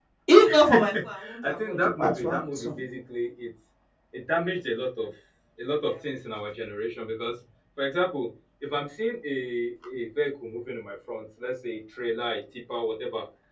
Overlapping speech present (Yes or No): Yes